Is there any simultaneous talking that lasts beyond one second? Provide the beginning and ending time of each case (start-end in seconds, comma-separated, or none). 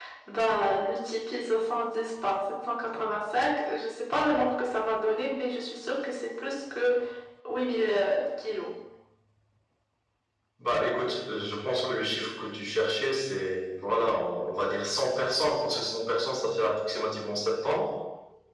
none